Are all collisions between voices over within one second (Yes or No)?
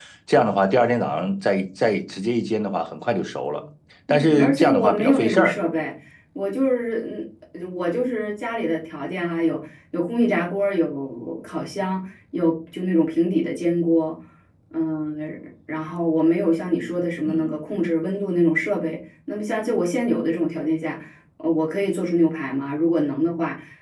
No